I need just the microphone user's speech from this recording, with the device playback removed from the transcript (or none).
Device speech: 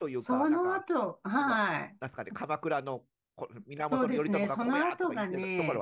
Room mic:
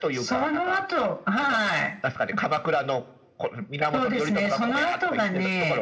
none